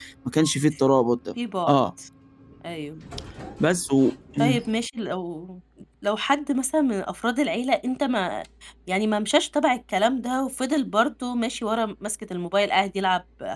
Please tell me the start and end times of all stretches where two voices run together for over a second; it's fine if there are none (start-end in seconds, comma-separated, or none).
none